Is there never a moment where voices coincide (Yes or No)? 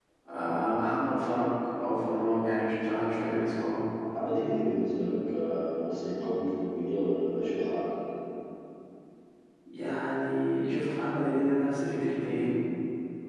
Yes